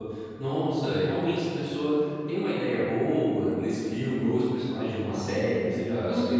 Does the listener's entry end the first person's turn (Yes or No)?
Yes